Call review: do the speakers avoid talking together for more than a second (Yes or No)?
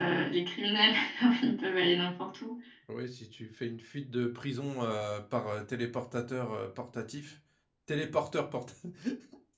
Yes